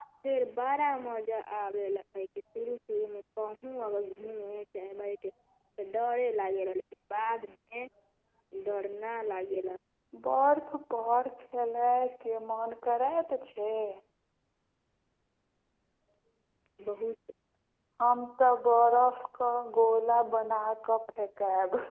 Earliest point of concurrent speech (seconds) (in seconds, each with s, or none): none